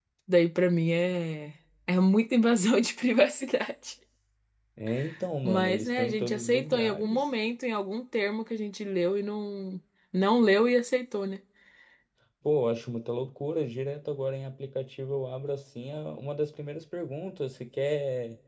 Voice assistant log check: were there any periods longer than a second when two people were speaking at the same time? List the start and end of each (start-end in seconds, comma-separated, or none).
5.4-7.3